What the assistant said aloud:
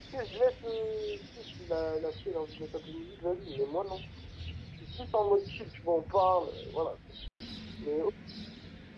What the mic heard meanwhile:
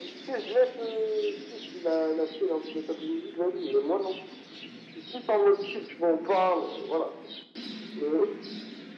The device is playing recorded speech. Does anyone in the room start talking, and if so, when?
none

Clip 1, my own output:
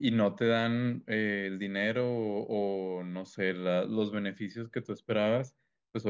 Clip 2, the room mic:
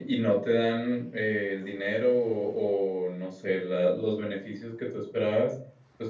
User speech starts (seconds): none

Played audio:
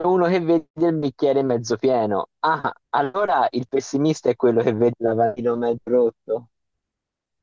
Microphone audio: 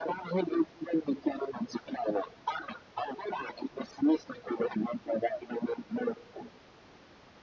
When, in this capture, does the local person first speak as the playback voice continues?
none

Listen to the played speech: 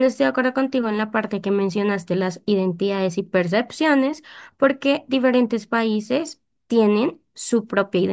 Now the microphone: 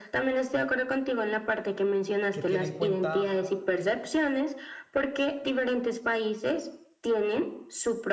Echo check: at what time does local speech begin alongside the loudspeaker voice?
2.3 s

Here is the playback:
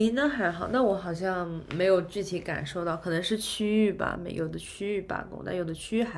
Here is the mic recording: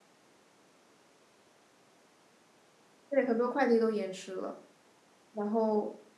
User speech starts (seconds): 3.1 s

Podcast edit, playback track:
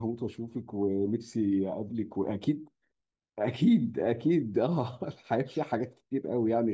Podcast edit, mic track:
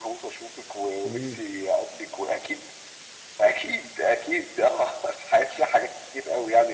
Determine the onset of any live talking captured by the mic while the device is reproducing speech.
1.1 s

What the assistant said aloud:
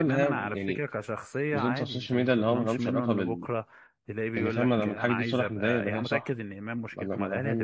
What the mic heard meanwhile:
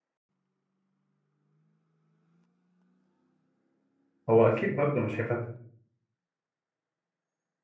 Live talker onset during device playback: 4.3 s

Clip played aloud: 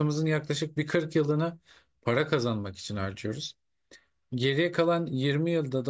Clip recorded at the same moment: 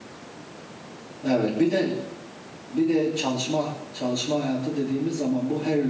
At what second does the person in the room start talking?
1.2 s

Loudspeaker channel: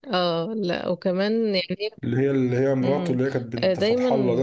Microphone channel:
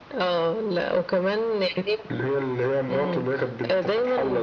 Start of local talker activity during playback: none

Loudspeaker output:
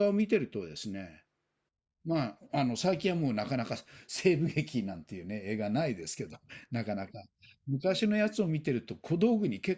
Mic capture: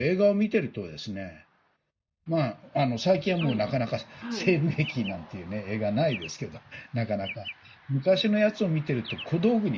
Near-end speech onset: 3.4 s

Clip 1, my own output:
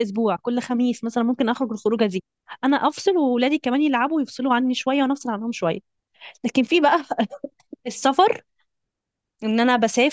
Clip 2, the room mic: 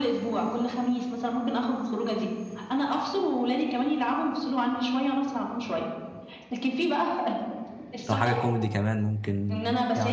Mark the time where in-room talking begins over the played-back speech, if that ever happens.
8.1 s

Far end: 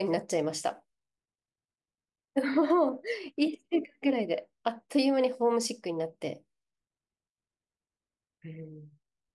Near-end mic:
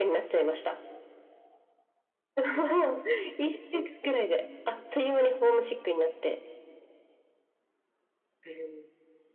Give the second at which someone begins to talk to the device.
none

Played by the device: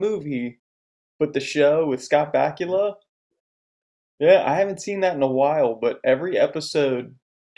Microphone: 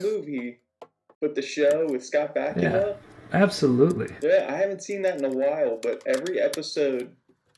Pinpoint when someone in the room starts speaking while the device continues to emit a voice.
2.6 s

